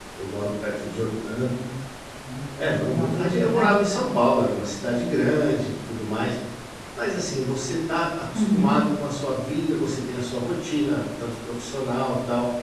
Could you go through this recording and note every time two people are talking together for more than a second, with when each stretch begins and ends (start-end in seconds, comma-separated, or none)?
2.6-4.1